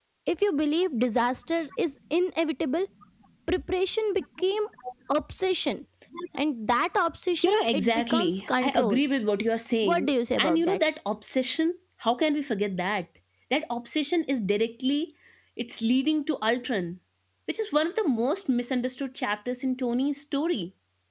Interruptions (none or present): present